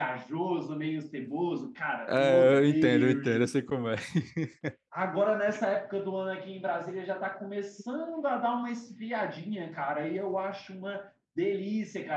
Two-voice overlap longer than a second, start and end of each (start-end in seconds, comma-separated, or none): 2.1-3.7